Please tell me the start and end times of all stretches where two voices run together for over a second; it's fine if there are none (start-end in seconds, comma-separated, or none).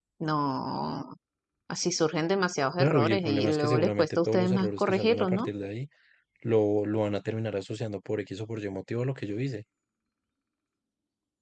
2.8-5.5